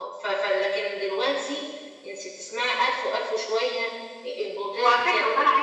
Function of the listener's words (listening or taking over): taking over